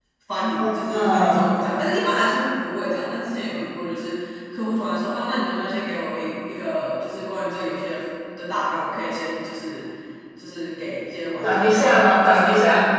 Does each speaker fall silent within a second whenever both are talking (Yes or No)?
No